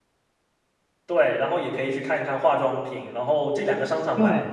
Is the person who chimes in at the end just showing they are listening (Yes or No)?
Yes